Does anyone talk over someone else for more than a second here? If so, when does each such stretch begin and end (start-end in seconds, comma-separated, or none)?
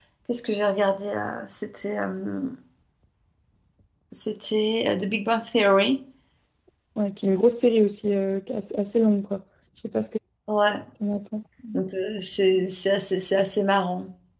none